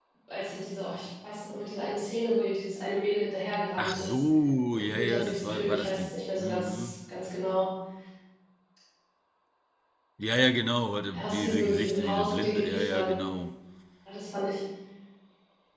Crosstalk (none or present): present